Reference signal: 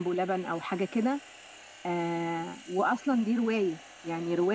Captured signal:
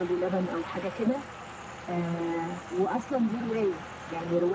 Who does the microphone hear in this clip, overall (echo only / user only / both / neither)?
echo only